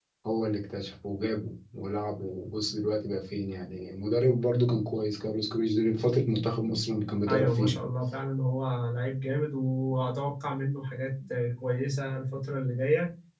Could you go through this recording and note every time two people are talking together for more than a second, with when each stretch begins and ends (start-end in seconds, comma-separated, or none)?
none